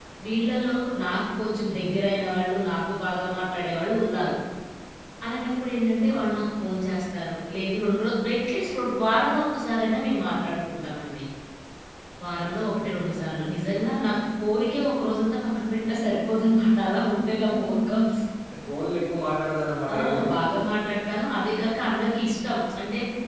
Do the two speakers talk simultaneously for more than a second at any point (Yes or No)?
No